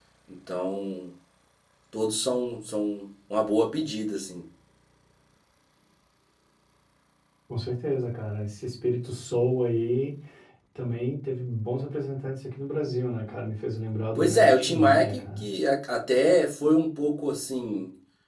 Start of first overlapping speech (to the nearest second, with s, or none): 14 s